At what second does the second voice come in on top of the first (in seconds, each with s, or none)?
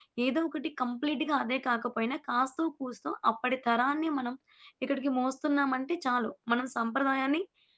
none